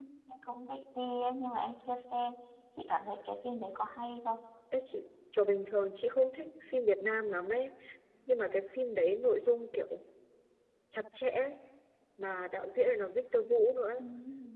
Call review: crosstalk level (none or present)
none